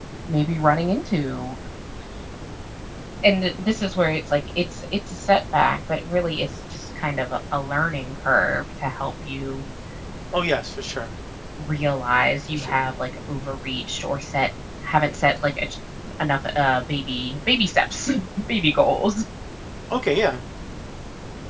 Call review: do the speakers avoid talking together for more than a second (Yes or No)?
Yes